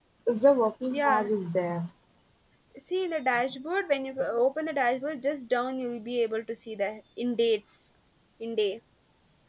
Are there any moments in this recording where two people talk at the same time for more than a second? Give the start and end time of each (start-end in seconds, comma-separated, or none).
none